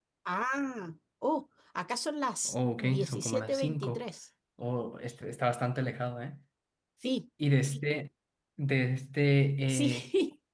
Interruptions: present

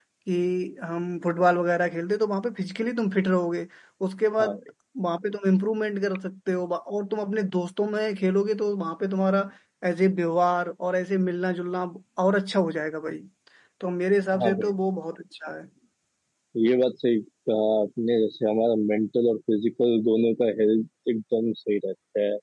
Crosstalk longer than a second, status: none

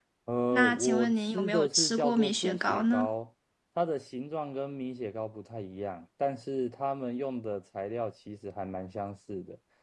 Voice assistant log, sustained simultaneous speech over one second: present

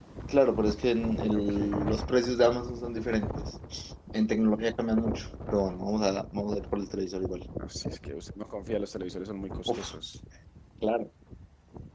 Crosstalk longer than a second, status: none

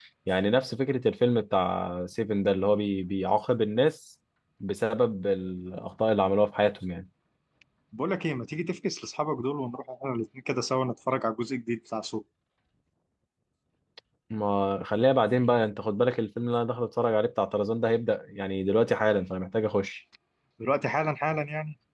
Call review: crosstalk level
none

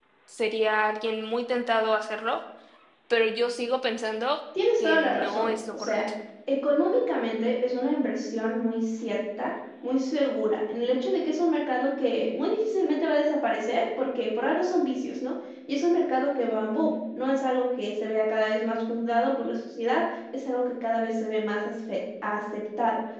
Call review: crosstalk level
present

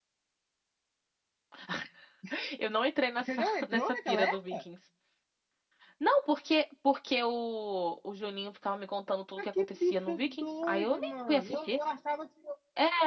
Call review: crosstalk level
present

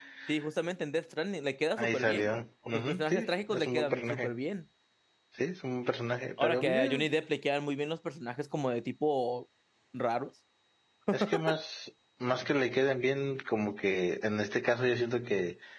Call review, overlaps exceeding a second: present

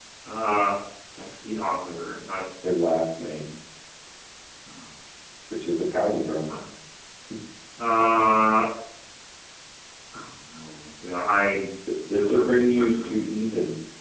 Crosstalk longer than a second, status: present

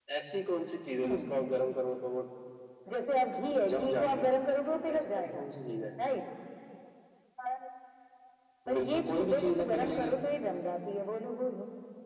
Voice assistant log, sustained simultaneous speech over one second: present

